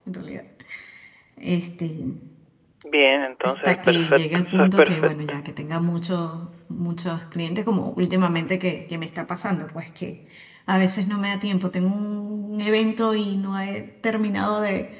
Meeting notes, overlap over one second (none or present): present